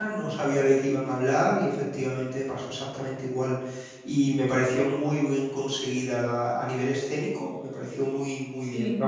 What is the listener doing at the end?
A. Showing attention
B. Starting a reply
A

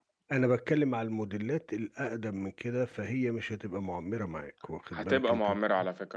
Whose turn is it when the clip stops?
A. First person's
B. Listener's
B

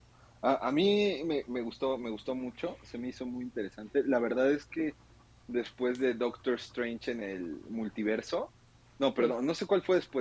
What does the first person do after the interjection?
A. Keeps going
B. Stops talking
A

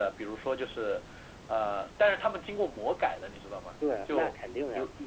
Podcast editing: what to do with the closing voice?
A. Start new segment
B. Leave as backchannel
A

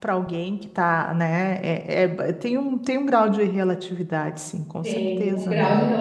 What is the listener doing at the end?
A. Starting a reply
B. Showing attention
A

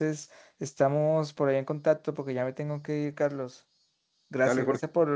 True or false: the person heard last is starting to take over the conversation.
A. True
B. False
B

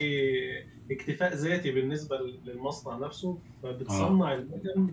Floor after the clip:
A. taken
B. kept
B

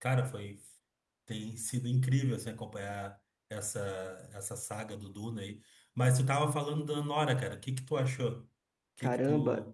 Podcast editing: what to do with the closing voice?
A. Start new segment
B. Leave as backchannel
A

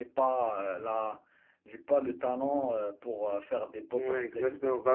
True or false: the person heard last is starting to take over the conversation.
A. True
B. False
A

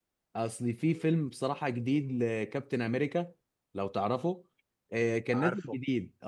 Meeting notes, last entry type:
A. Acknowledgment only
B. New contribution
A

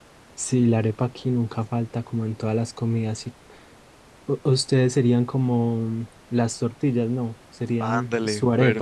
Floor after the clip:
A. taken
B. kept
A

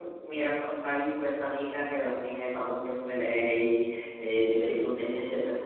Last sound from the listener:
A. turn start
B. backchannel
B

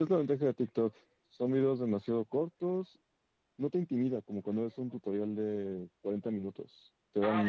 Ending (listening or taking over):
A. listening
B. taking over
B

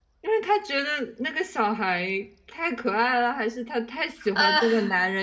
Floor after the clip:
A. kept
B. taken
A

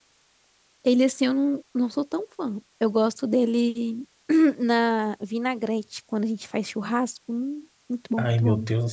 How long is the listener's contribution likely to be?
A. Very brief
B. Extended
B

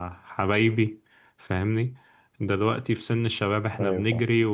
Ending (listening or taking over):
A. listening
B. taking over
A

